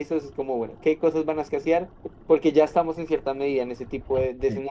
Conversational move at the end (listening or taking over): listening